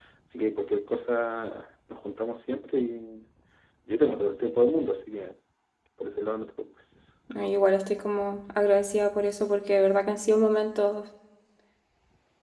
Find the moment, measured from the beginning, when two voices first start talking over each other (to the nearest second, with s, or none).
none